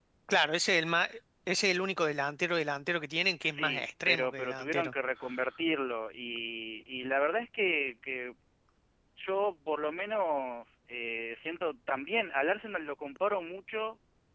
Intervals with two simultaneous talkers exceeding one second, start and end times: 3.4-4.9

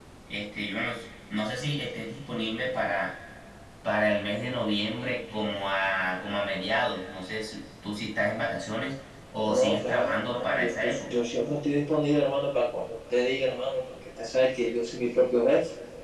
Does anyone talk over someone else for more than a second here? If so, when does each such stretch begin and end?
9.4-11.2

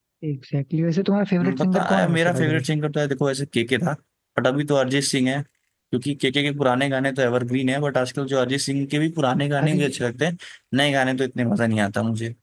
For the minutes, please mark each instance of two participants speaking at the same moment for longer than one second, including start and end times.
1.4-2.6

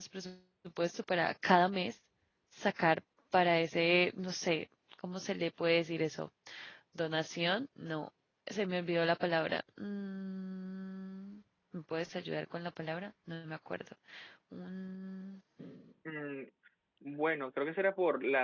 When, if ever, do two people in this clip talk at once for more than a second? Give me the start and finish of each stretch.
none

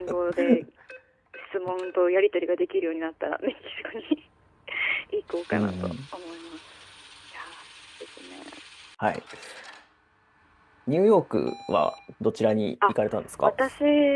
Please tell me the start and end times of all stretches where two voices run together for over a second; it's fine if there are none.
none

